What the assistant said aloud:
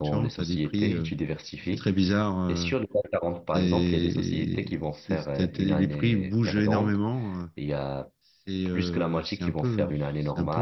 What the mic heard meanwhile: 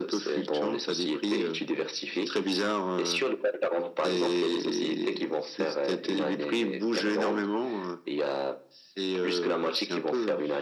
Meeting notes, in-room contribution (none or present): none